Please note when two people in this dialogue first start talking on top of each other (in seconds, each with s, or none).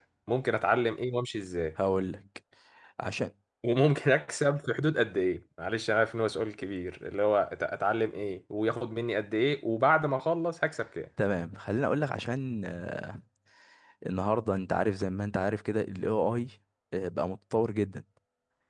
none